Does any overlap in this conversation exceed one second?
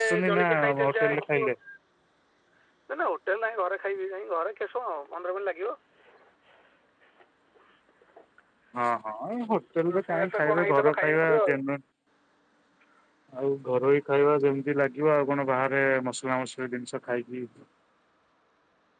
Yes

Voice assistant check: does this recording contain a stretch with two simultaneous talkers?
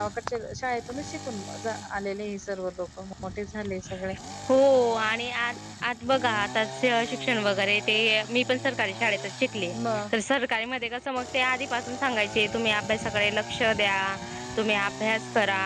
No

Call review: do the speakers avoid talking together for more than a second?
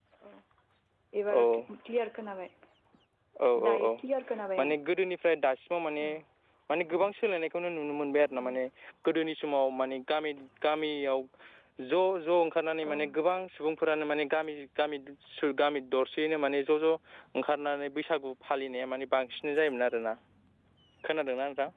Yes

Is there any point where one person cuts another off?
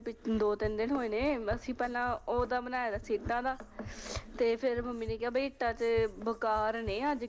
No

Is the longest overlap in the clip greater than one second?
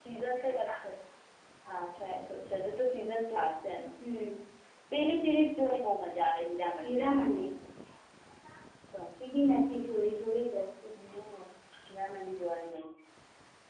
No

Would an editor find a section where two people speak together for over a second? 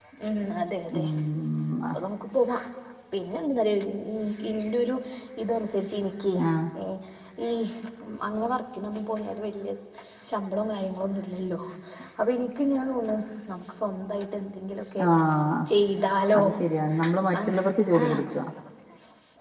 No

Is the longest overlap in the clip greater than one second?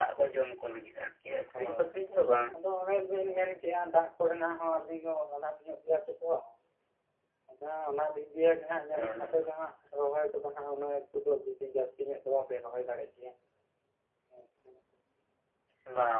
No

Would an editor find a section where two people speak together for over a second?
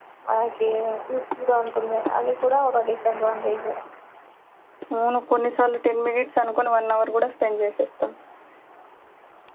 No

